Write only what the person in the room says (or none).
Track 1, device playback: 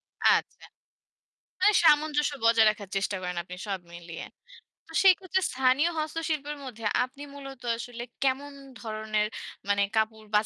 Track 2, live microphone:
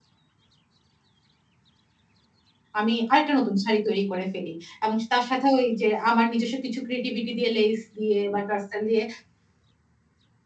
আমি আরেকটা নতুন শাড়ি তৈরি করে ফেলি। এবং তার সাথেও ওই যে আমার নিজস্ব কিছু ক্রিয়েটিভিটি দিয়ে লেস দিয়ে বা টার্সাল দিয়ে